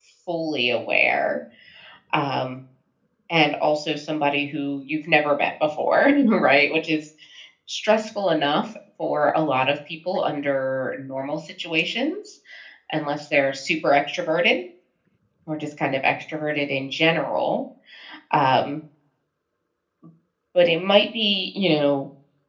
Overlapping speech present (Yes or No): No